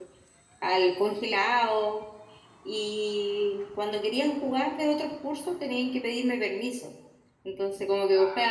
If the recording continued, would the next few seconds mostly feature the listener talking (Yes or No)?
No